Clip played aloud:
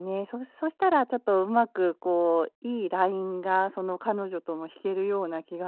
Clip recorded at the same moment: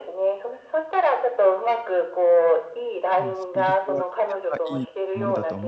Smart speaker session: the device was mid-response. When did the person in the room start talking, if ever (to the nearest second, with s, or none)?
3 s